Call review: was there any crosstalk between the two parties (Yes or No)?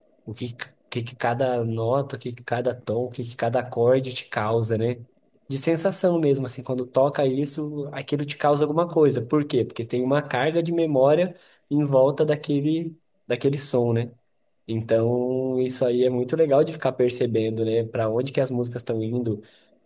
No